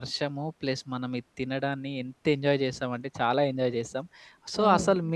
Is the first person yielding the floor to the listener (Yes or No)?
No